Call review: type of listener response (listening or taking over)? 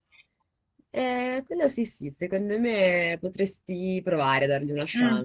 taking over